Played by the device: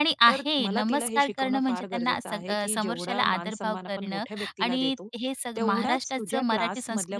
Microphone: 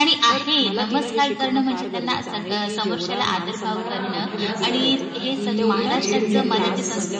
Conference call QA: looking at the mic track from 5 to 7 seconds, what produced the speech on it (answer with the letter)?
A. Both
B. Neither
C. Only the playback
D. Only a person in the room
A